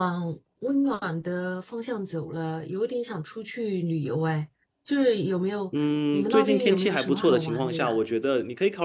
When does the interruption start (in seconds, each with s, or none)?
6.1 s